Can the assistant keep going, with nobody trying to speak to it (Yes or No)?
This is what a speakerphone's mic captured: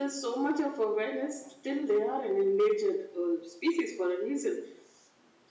Yes